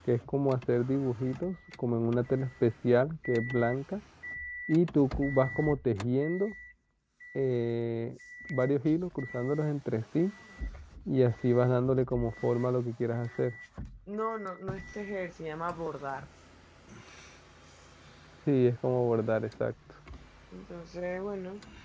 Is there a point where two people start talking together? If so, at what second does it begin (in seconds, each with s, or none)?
none